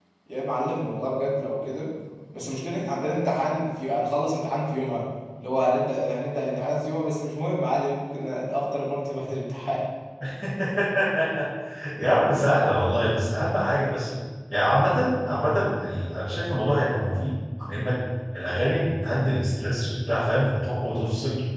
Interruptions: none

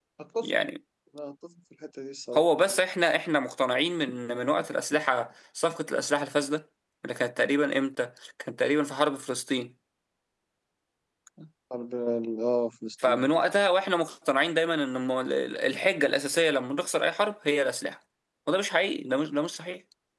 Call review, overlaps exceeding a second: none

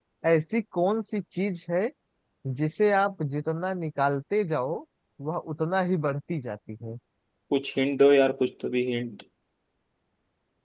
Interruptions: none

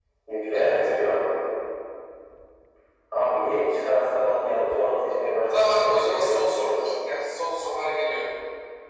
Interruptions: present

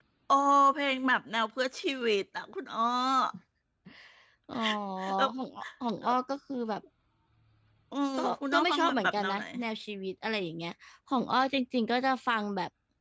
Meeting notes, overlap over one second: present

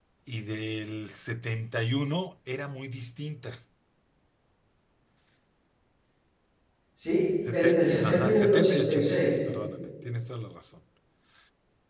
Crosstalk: present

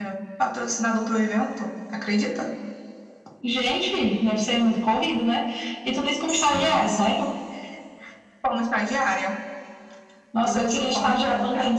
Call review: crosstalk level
present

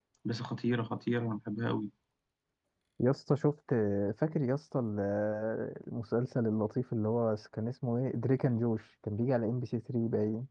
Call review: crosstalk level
none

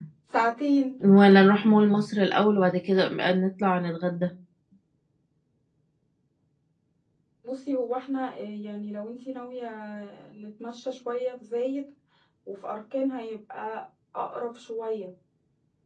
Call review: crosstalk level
none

